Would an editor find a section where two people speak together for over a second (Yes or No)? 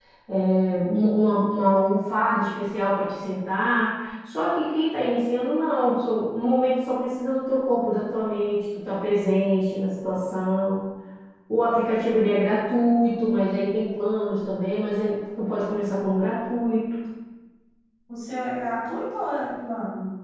No